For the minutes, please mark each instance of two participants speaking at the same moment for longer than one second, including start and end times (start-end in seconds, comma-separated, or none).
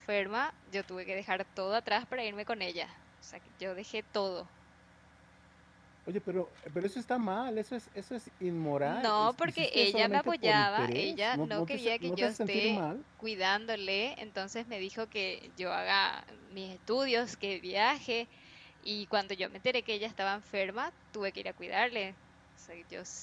8.8-12.8